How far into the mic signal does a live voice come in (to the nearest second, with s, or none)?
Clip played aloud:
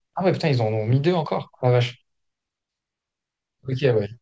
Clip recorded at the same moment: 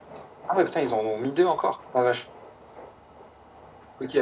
none